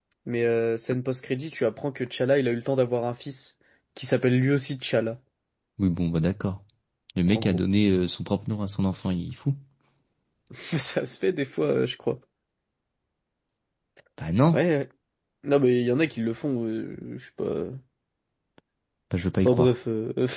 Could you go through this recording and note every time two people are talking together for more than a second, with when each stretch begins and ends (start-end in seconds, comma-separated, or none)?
none